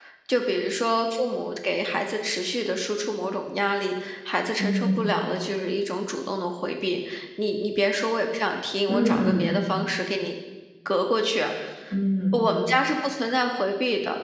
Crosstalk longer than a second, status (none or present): none